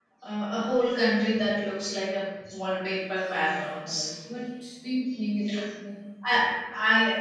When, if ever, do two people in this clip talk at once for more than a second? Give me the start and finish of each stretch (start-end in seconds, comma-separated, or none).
none